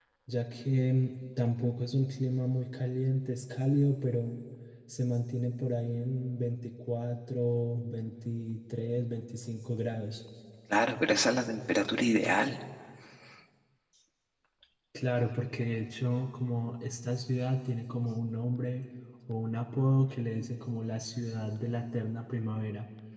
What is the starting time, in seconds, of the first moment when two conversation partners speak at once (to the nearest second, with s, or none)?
none